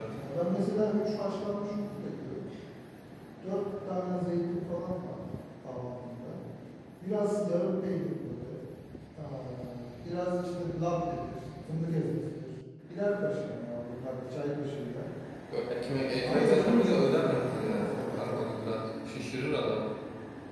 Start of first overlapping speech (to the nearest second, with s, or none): 16 s